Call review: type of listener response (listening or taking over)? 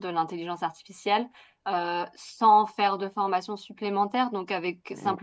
listening